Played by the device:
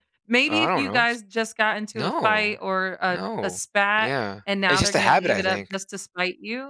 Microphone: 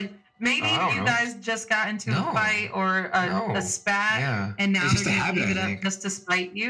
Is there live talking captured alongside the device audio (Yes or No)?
No